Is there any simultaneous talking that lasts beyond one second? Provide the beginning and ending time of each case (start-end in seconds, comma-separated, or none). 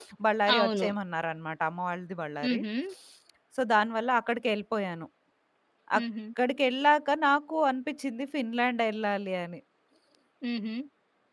none